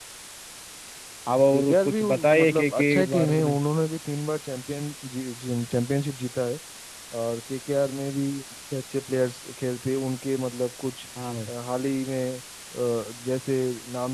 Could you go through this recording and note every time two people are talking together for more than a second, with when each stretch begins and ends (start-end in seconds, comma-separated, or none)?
1.5-3.6